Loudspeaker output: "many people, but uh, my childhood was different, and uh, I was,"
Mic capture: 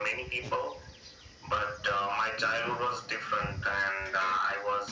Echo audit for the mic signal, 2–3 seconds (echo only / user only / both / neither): echo only